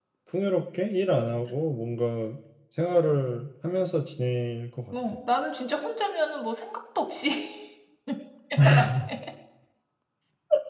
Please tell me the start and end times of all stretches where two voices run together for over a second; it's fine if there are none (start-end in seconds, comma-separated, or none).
none